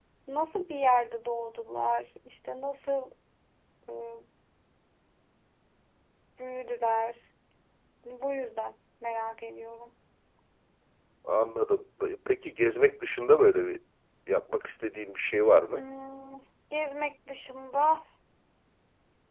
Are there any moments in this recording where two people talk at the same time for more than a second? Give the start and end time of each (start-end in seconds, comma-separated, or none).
none